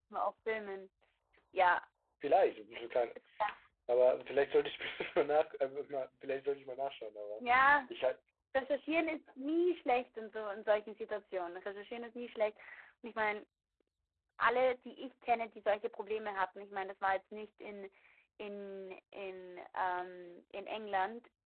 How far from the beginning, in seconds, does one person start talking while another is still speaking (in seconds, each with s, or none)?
none